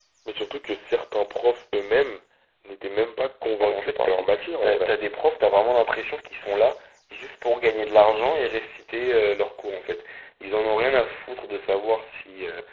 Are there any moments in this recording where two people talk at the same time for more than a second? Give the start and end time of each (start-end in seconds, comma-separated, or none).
3.6-4.9